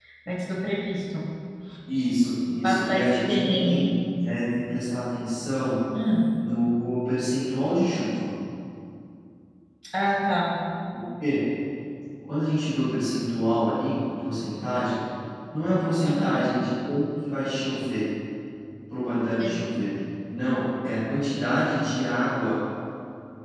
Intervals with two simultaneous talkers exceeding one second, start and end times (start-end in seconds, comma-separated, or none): 2.5-3.8